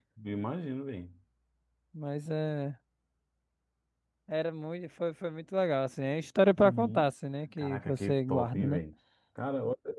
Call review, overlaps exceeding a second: present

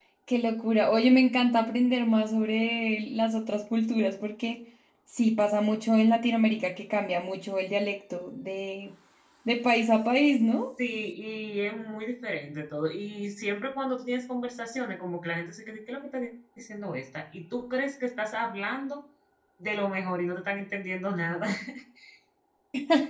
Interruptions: none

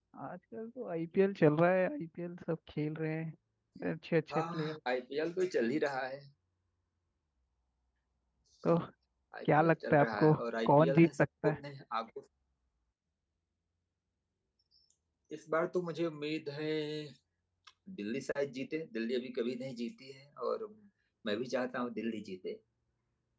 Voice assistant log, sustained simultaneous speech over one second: present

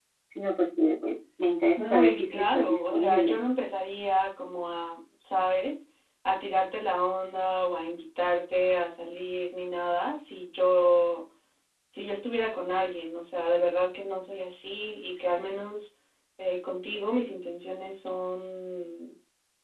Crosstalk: present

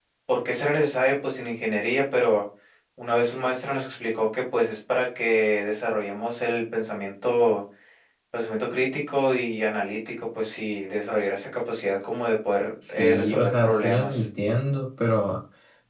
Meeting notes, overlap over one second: present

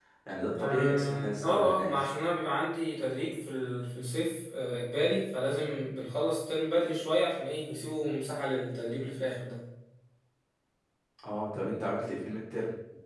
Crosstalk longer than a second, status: present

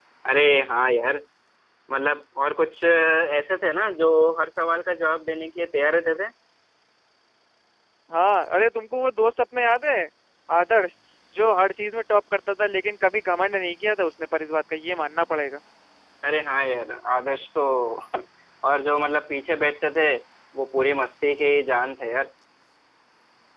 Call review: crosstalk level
none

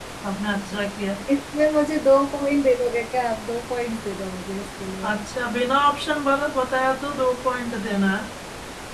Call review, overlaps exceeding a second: none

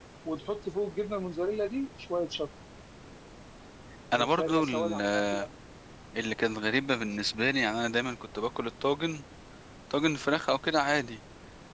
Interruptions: present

